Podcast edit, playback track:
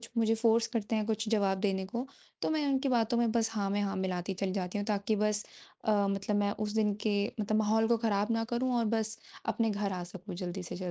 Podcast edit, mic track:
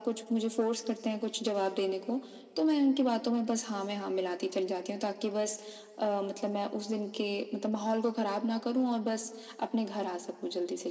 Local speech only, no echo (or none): none